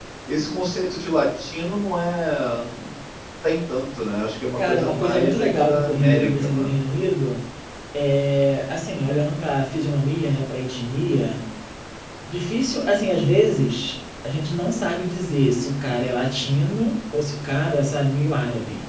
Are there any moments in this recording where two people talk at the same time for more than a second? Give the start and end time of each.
4.6-6.7

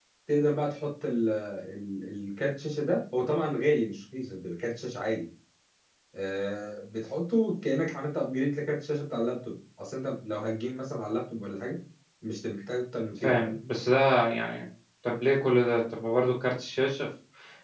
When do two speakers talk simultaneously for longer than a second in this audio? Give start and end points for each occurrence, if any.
none

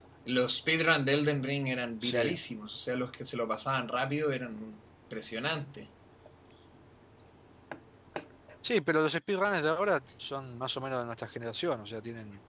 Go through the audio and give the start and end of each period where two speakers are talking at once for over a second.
none

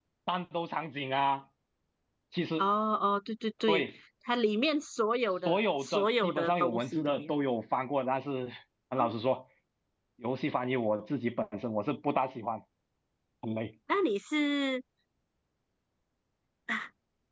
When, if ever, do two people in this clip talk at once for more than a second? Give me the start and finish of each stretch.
5.4-7.3

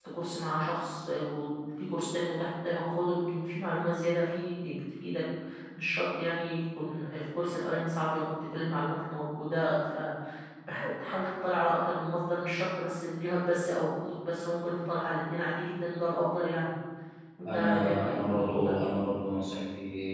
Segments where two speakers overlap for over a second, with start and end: 17.5-18.8

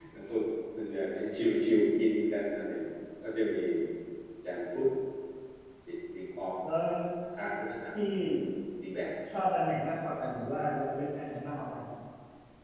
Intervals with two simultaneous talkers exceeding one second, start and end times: none

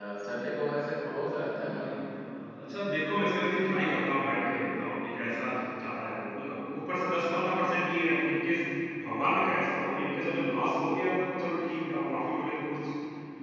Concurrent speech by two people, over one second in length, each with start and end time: none

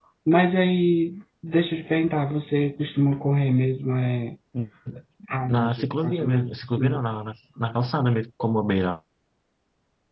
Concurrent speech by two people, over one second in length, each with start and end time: 5.5-7.0

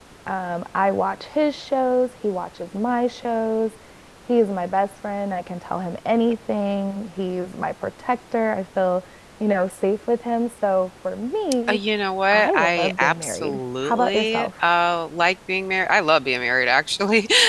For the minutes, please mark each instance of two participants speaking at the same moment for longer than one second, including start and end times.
12.3-14.5

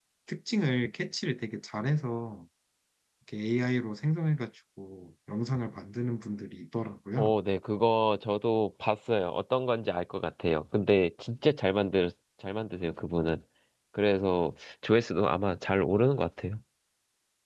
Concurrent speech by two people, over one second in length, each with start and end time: none

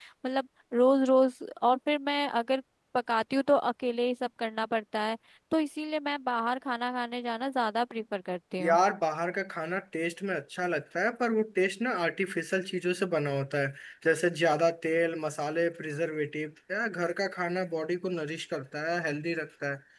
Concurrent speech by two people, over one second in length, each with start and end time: none

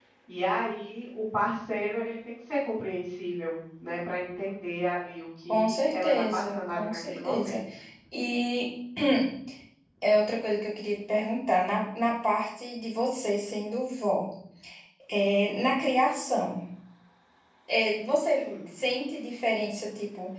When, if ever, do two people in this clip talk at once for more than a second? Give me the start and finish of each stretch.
5.5-7.6

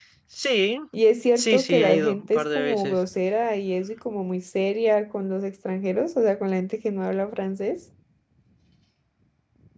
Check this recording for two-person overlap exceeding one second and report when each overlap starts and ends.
1.4-3.0

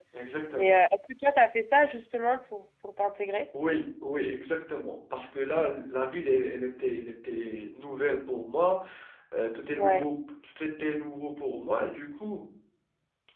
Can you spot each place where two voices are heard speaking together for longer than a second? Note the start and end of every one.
none

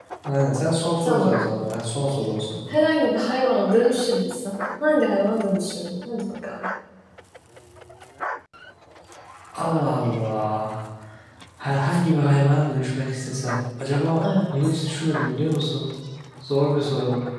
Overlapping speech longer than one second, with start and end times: none

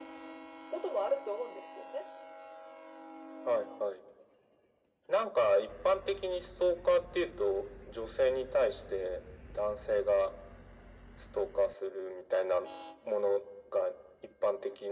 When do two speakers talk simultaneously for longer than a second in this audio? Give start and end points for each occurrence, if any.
none

